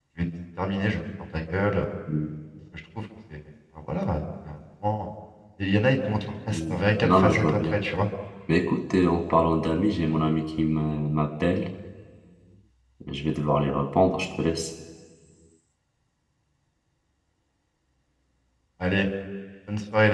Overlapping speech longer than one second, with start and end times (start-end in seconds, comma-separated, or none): 6.5-7.8